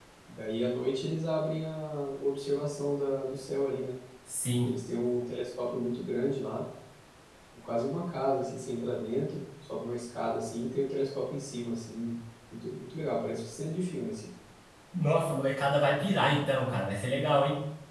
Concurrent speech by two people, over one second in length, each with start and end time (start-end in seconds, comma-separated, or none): none